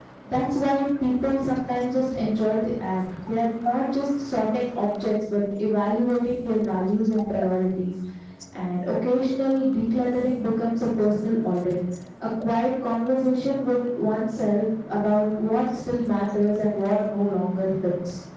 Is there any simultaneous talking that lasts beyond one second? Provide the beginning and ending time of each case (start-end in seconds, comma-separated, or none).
none